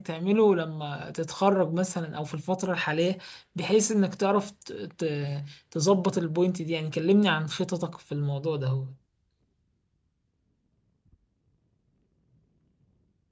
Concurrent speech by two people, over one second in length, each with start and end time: none

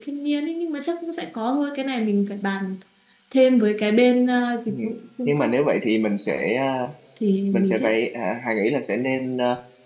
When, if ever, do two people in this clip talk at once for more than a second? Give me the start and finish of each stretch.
none

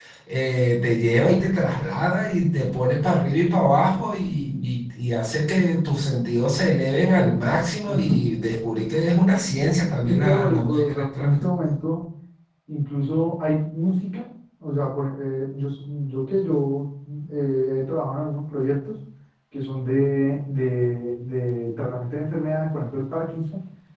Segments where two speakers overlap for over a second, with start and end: 10.1-11.5

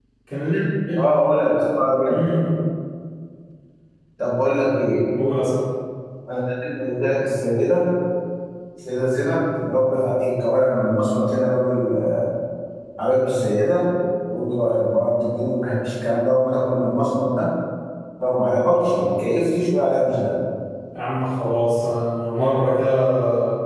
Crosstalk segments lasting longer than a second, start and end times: none

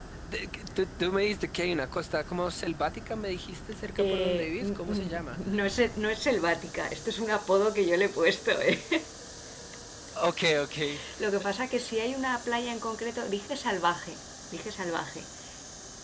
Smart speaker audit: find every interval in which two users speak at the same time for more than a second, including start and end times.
4.0-5.4

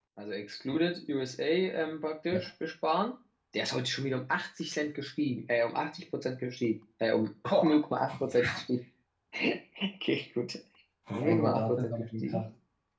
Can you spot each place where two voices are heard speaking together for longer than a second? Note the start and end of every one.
11.2-12.4

